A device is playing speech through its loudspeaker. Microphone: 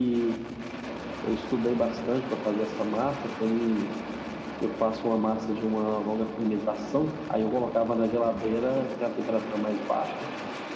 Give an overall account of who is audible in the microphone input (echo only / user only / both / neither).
echo only